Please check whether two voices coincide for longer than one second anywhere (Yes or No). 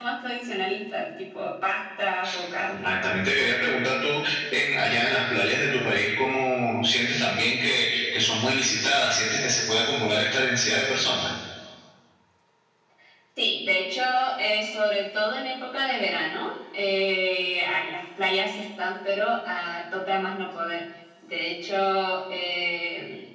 No